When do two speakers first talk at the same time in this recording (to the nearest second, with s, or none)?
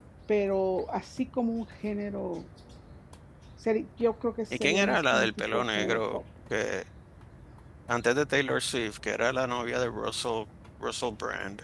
5 s